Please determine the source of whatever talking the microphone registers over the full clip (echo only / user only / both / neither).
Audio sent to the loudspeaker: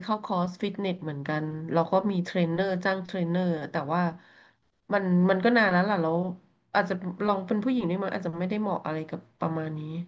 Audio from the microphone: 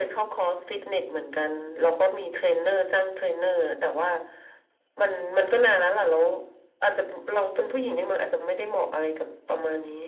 echo only